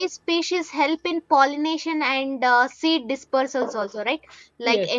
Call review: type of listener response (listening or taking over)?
listening